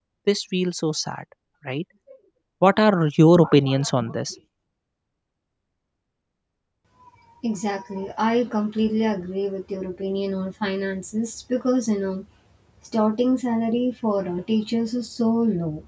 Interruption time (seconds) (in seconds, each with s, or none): none